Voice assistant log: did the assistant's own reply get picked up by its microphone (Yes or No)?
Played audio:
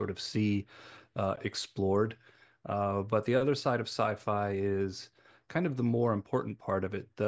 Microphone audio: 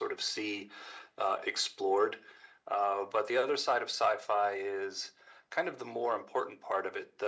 Yes